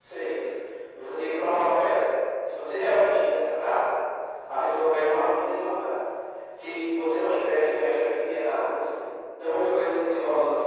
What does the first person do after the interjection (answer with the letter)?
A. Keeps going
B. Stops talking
A